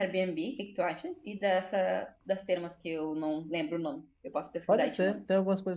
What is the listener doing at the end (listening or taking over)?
taking over